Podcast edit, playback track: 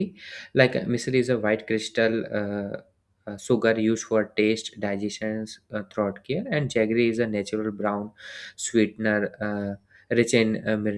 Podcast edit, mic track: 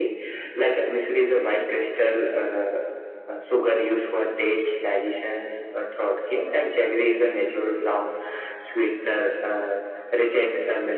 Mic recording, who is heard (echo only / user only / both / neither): echo only